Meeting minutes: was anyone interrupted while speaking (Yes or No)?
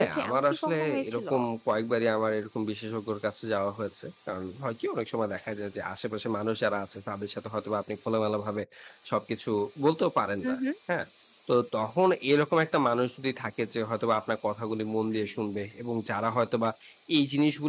Yes